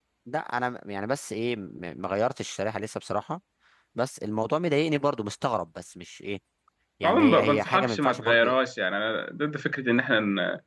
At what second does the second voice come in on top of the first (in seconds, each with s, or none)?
7.0 s